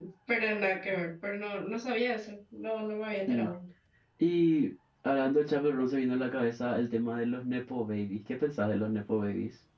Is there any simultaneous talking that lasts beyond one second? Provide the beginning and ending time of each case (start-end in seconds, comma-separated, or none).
none